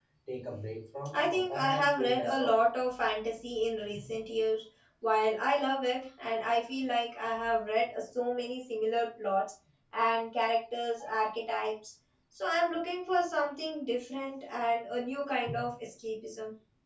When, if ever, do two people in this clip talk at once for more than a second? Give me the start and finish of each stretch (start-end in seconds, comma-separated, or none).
1.1-2.6